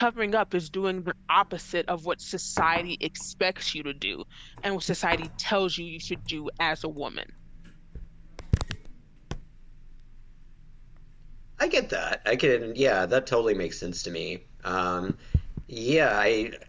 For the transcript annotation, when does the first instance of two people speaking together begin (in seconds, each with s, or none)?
none